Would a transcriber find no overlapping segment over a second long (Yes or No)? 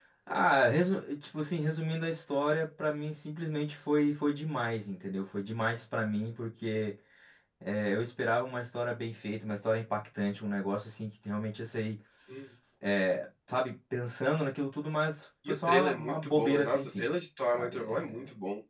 No